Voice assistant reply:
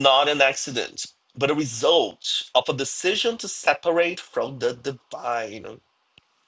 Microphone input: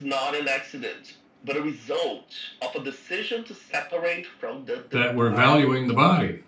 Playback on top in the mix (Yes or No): No